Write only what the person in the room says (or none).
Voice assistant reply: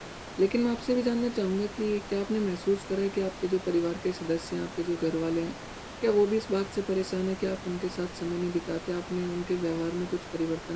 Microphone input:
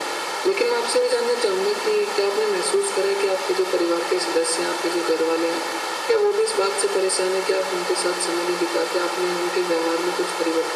none